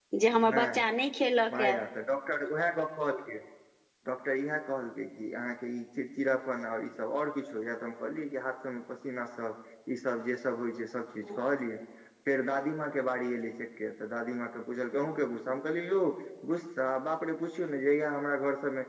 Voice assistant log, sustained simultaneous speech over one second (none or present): none